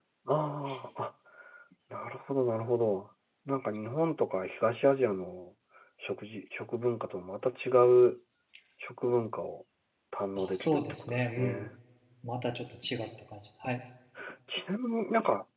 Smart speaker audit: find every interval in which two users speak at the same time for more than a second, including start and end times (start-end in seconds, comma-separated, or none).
10.4-11.7